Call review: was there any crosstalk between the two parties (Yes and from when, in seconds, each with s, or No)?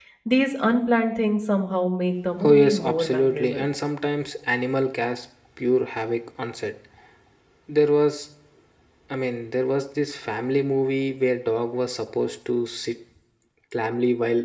Yes, from 2.4 s